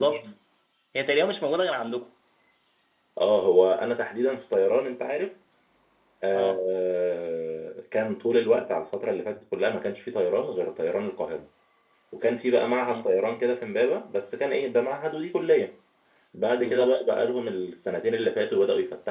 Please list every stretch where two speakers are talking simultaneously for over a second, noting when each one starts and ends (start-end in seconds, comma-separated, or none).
none